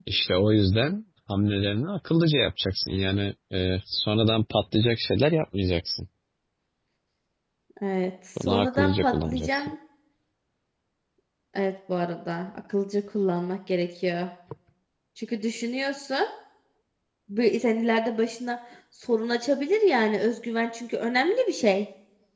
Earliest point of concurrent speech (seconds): 8 s

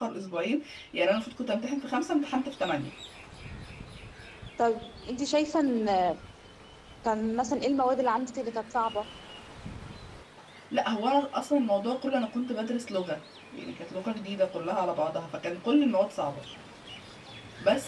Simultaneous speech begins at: none

